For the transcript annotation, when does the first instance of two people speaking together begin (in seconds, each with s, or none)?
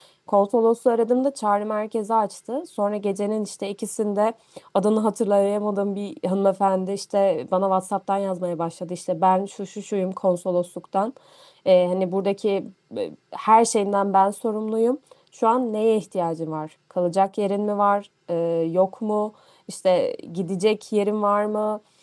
none